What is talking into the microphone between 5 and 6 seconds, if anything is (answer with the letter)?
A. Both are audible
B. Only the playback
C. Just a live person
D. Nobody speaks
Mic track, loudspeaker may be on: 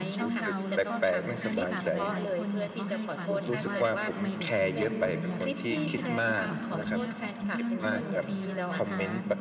A